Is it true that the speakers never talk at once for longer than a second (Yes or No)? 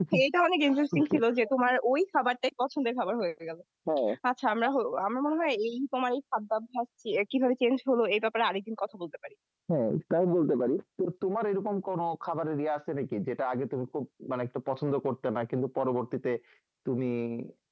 Yes